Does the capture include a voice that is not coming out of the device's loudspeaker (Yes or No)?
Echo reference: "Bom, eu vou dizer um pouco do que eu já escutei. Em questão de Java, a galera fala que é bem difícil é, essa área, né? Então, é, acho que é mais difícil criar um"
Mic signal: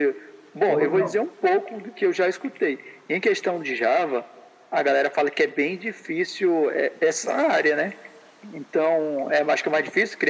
Yes